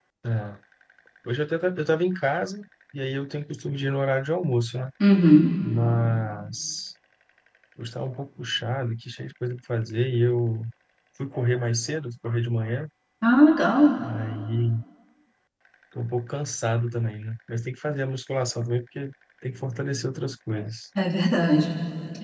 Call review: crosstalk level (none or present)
none